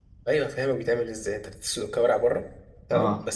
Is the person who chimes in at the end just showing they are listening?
Yes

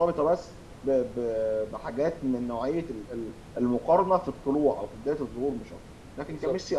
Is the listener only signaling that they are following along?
Yes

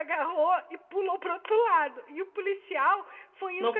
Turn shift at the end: No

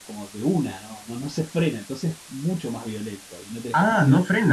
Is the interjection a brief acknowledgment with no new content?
No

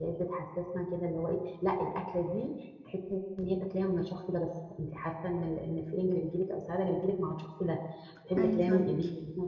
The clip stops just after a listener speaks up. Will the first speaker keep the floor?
Yes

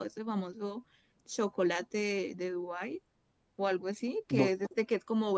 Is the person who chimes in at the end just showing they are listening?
Yes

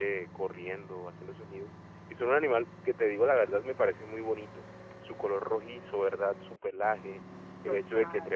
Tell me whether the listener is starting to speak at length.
No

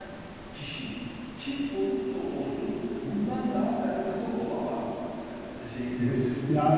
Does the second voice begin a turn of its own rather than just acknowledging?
Yes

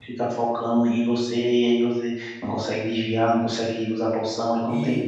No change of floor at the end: Yes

